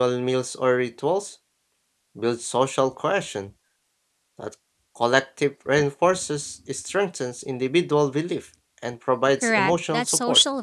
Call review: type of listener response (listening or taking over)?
taking over